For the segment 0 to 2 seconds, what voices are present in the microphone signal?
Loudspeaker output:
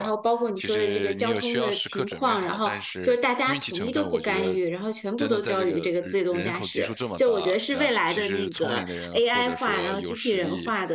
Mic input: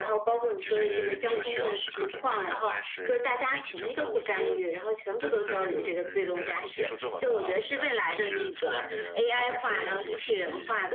echo only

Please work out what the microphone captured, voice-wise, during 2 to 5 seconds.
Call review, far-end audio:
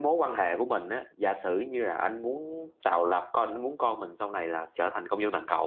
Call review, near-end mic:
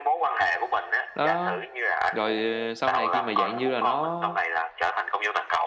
both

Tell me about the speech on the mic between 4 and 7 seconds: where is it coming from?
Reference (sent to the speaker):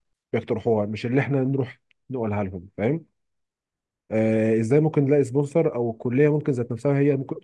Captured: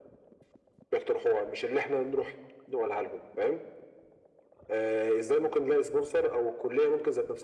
echo only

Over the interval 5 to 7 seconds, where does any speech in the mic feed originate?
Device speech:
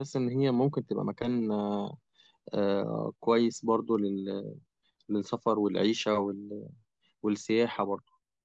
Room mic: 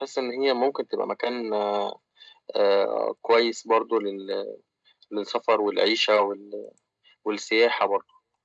echo only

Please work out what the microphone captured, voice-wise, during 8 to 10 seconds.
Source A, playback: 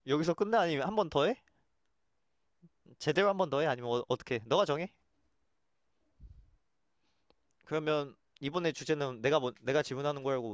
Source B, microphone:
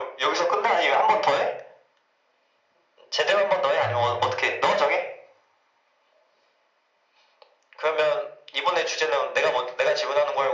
echo only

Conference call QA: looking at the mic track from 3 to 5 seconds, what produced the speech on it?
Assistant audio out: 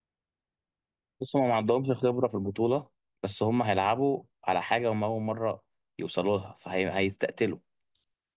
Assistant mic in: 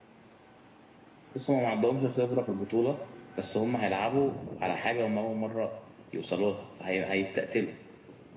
echo only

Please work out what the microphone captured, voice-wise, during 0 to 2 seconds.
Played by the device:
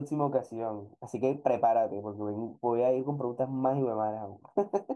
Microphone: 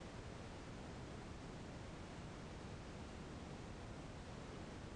neither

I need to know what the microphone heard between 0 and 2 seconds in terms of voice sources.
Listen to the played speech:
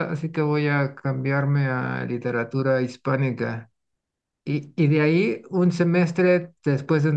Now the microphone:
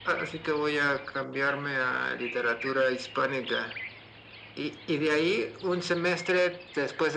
echo only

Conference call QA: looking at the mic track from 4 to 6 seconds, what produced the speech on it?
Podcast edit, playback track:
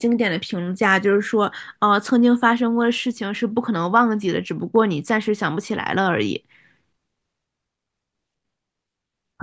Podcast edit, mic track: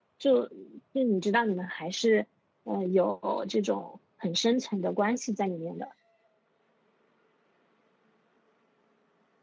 user only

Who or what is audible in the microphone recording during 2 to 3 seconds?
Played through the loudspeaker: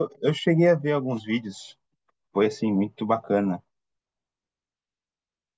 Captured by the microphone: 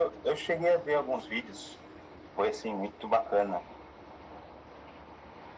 echo only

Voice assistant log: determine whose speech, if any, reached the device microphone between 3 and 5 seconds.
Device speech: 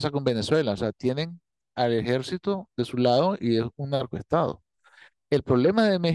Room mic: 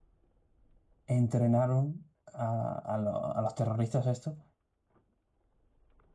user only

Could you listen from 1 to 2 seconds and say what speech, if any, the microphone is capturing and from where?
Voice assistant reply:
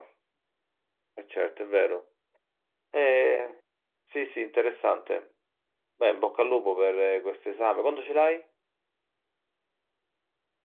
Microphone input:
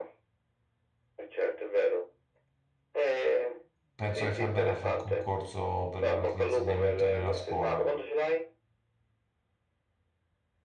echo only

